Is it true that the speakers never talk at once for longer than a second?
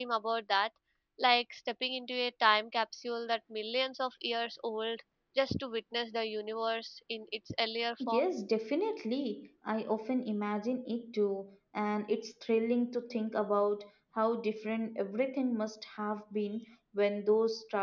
Yes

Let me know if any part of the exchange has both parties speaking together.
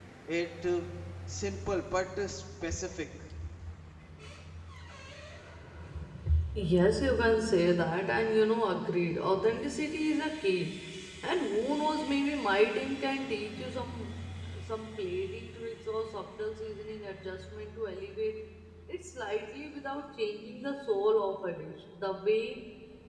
No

